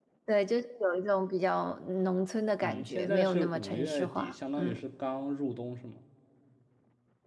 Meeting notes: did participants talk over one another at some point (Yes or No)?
Yes